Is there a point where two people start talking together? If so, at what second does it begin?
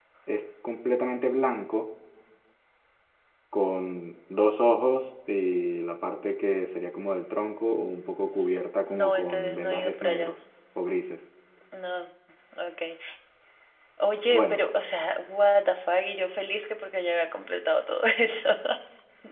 8.9 s

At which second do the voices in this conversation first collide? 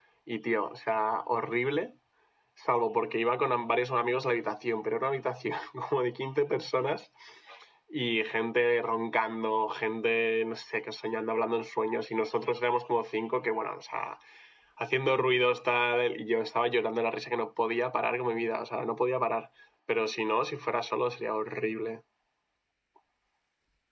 none

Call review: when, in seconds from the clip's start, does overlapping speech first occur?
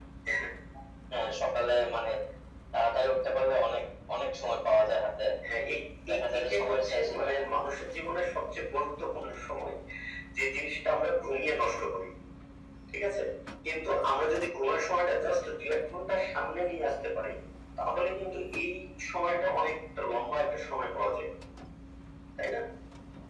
6.1 s

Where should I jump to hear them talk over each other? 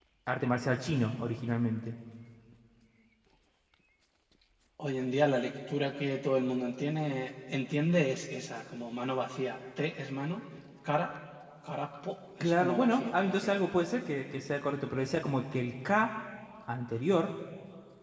12.4 s

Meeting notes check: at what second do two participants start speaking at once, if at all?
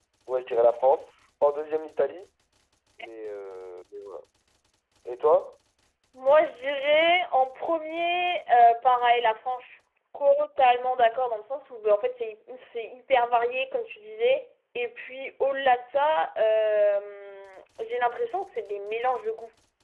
none

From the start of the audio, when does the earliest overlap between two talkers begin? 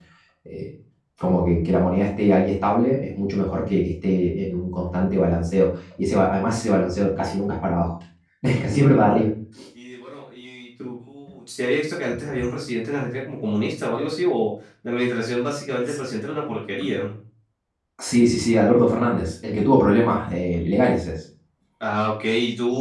none

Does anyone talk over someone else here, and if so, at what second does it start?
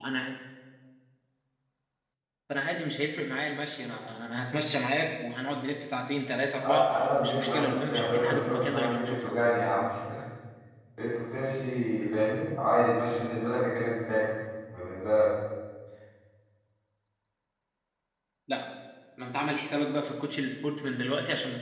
6.6 s

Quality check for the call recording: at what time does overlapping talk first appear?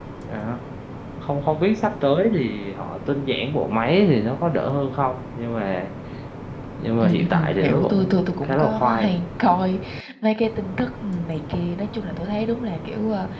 7.0 s

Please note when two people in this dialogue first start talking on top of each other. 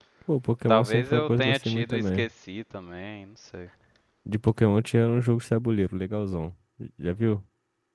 0.7 s

